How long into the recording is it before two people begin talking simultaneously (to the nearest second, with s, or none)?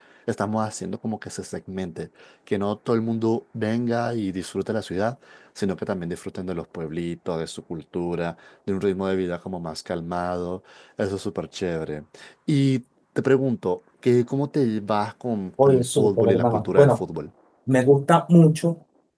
16 s